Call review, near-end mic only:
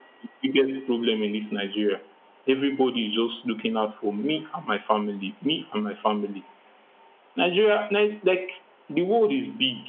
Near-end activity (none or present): none